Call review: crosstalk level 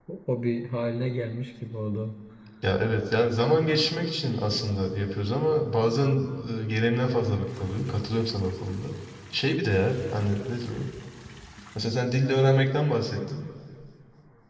none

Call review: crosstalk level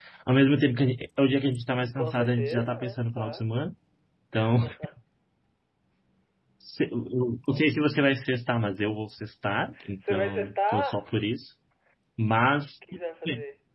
present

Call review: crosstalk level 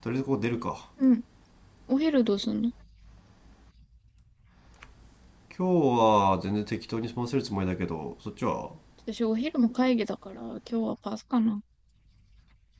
none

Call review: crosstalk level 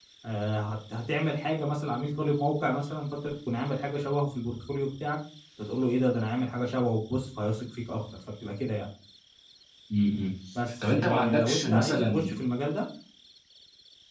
present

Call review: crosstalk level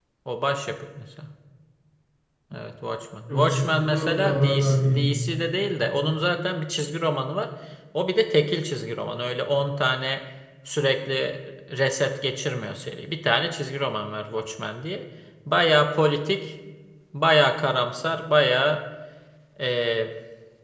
present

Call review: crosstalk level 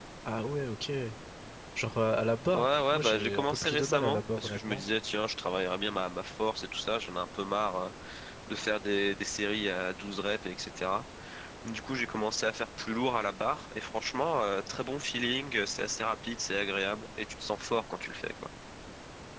present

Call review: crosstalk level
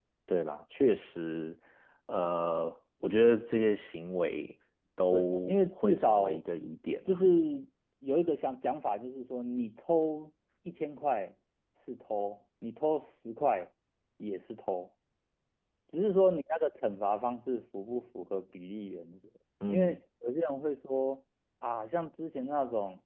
present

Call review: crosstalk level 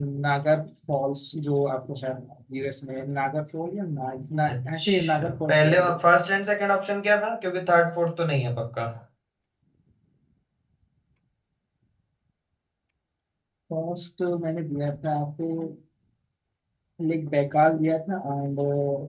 present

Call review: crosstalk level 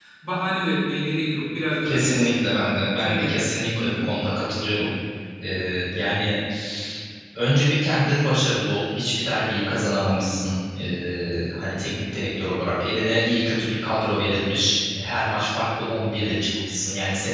present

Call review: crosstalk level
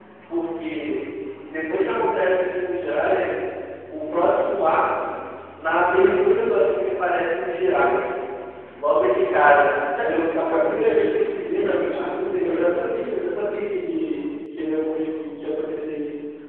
present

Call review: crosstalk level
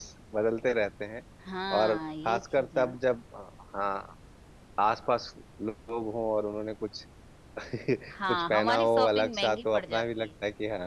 present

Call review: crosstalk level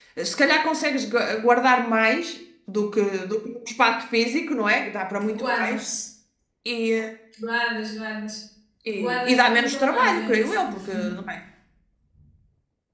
present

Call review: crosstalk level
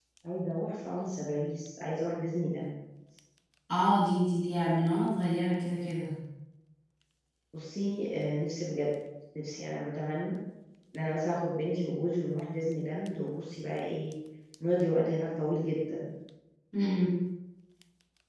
none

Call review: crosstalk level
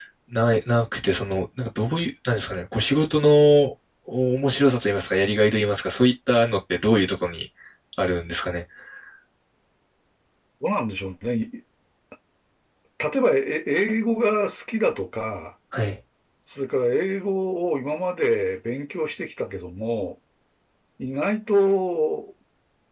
none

